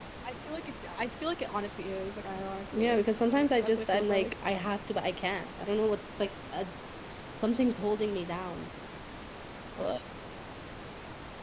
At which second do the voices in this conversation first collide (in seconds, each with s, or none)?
2.7 s